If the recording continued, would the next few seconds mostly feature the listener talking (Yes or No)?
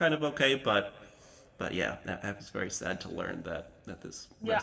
Yes